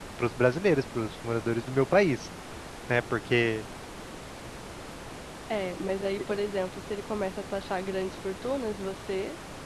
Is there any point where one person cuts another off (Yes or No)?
No